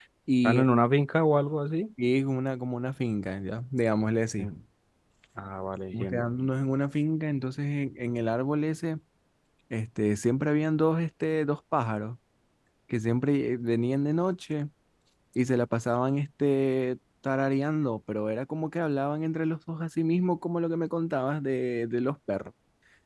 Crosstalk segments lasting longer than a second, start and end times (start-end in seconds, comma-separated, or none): none